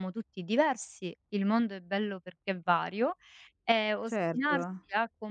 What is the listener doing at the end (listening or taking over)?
listening